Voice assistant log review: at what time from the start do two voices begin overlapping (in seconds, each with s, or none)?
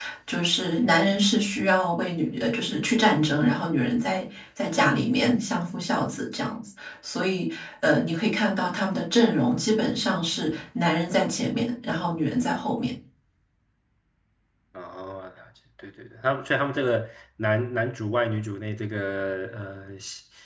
none